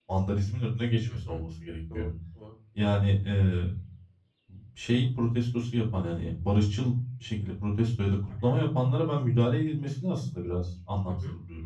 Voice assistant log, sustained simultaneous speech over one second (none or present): none